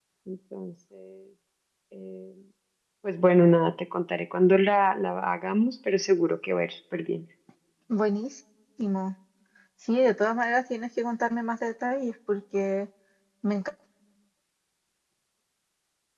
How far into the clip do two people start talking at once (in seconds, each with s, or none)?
none